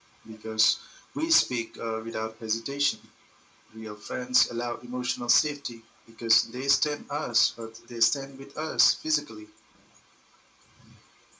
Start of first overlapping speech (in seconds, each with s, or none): none